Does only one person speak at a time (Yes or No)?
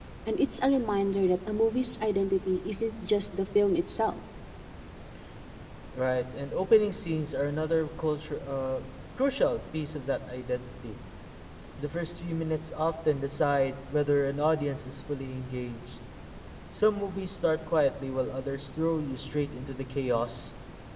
Yes